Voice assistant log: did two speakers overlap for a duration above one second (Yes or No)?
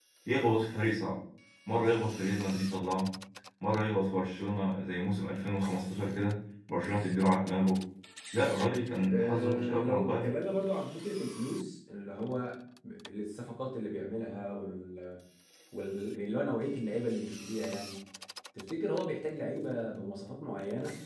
Yes